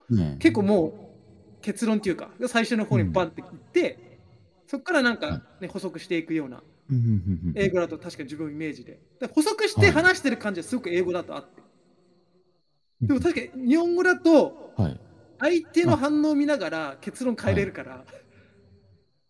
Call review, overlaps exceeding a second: none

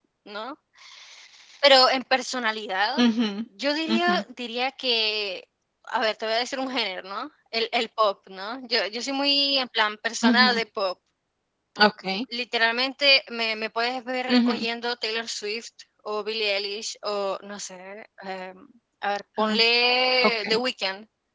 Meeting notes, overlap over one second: none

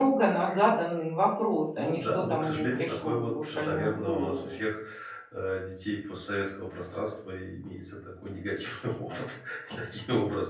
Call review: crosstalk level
present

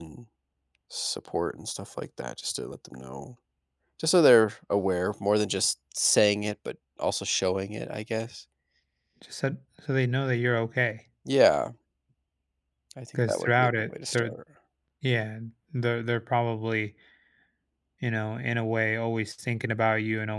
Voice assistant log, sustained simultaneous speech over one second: present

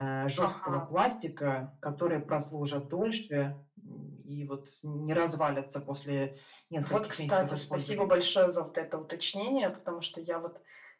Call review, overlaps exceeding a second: present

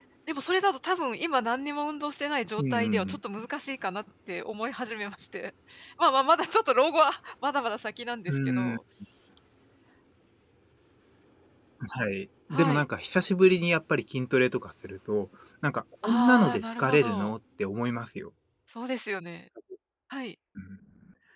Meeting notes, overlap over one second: present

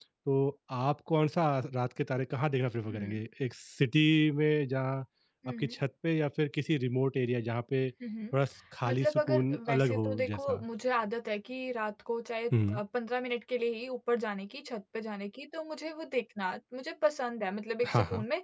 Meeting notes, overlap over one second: present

